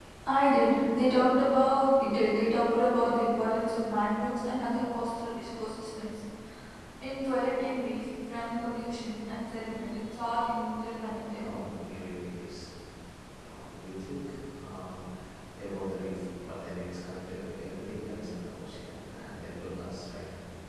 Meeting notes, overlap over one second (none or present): none